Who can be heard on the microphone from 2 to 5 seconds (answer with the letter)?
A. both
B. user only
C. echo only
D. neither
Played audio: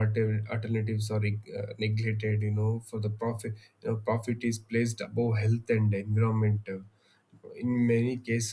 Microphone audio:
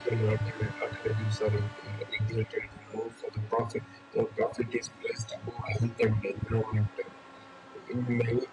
C